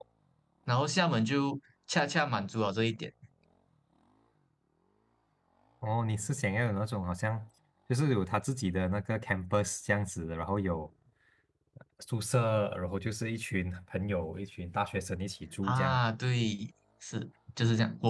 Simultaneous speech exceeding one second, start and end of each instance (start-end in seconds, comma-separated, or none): none